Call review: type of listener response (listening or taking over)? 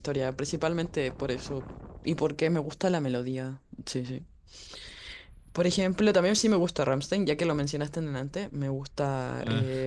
listening